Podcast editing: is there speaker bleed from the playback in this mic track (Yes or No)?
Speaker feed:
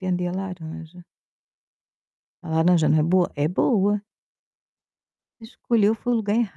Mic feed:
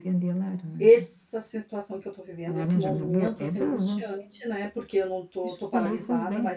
Yes